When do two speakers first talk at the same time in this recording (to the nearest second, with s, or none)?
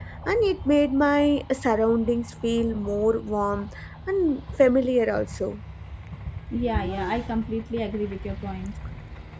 none